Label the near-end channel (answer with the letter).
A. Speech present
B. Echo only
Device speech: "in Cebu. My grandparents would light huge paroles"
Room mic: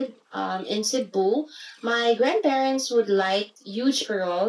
B